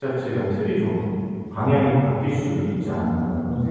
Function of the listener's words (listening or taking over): taking over